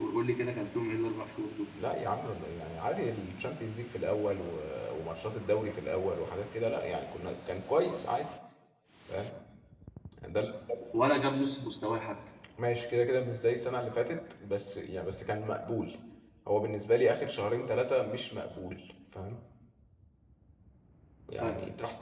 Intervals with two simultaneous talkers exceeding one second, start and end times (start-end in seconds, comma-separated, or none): none